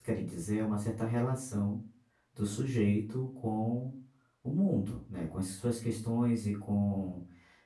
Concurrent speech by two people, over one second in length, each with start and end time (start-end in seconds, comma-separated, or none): none